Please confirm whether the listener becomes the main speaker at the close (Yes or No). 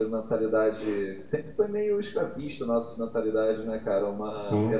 No